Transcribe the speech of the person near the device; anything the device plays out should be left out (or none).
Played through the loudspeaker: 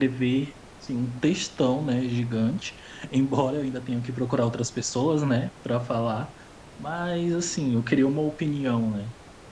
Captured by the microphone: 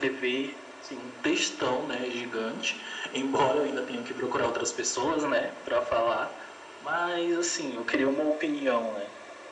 none